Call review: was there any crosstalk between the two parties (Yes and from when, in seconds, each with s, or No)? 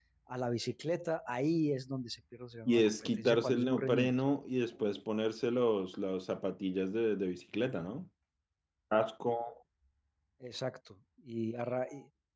Yes, from 2.7 s